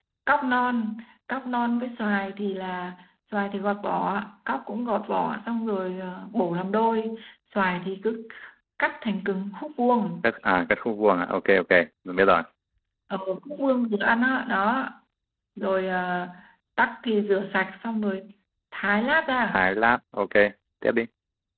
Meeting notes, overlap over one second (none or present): none